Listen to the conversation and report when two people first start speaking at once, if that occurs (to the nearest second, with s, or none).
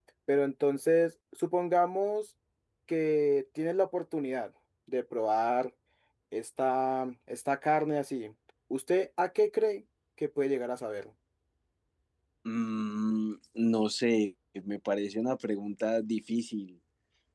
none